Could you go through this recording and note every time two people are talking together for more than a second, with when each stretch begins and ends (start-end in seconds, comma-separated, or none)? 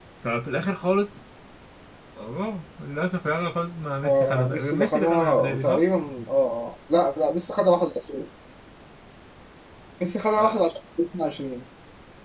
4.0-5.8